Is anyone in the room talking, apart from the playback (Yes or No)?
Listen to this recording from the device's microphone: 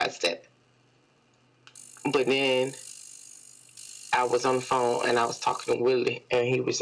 No